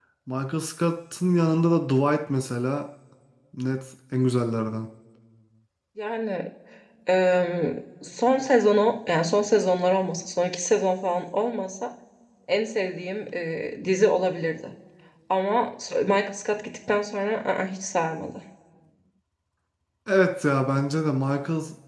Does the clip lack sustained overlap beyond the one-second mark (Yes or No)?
Yes